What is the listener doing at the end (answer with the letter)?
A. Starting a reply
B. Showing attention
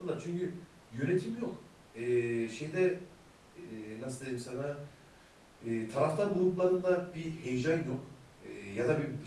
B